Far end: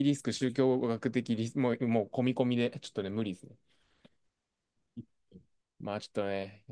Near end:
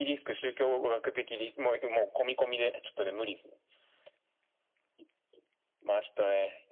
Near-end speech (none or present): none